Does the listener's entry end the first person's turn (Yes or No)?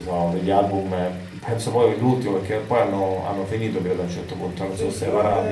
Yes